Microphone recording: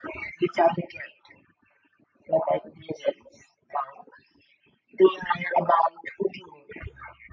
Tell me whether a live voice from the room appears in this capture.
No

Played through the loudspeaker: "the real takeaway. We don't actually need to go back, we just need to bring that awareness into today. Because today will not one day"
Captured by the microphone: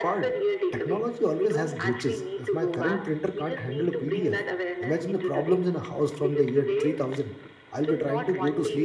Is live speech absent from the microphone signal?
No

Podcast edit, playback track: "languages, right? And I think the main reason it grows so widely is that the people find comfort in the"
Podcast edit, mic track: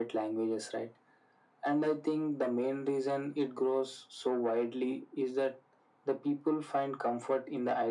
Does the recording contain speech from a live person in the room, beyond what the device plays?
No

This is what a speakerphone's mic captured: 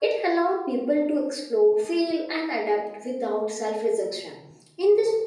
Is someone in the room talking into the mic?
Yes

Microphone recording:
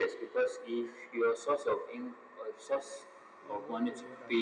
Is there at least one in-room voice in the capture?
Yes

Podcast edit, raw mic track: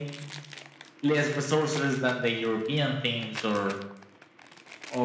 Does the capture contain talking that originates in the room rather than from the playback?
No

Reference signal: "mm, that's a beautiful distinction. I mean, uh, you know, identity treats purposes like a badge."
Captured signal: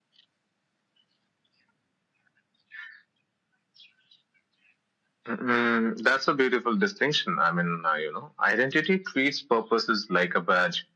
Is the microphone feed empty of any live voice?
Yes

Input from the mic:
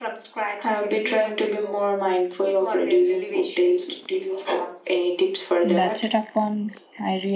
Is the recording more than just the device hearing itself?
Yes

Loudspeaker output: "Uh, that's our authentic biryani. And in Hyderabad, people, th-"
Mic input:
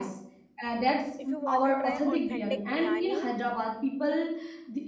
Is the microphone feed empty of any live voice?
No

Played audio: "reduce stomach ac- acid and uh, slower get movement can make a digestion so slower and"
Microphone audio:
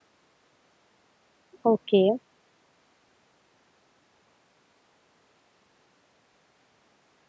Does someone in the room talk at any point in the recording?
Yes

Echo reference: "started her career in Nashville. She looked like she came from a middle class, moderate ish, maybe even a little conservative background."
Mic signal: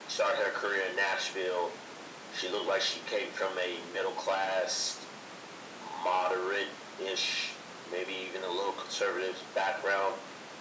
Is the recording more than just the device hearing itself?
No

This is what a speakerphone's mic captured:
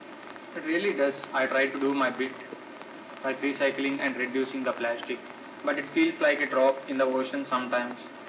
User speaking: No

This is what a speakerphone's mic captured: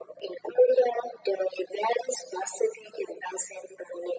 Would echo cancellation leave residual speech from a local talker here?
No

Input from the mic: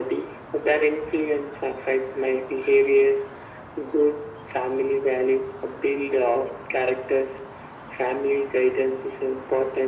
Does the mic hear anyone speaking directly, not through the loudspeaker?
No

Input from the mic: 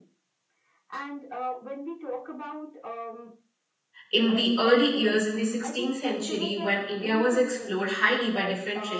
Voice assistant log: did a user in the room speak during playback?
Yes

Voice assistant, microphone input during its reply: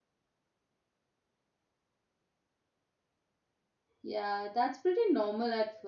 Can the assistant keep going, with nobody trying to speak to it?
No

